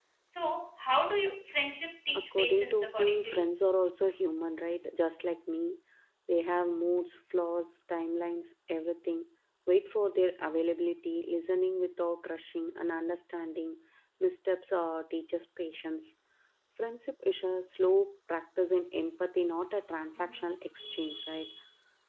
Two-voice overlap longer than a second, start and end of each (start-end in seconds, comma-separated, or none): 2.1-3.5